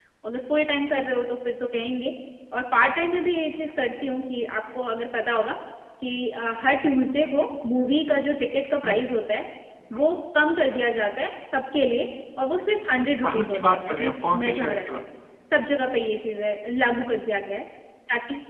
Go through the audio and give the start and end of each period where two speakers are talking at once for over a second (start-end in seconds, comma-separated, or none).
13.2-14.8